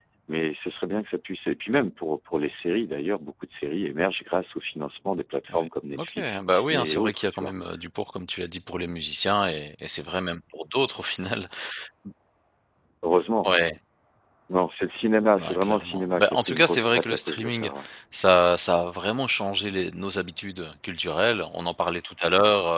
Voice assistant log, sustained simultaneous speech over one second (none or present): present